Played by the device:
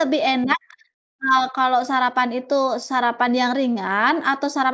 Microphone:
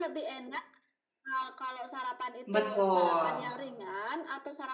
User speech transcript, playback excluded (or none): Betul.